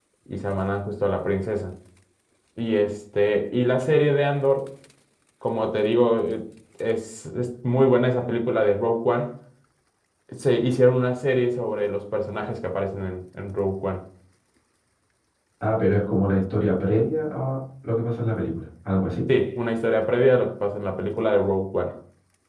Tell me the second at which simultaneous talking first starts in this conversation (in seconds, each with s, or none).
none